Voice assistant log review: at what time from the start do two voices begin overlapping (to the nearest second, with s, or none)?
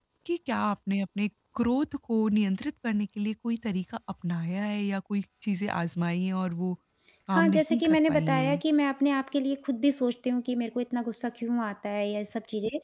7 s